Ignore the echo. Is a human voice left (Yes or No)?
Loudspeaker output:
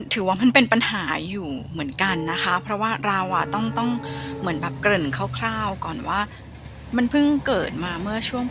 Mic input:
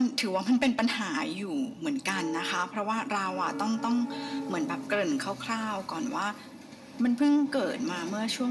No